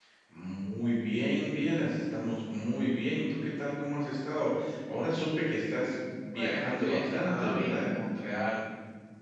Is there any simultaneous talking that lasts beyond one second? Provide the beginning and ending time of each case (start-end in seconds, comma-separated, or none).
6.3-7.9